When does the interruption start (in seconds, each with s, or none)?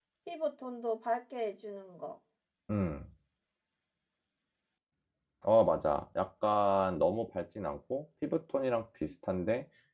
none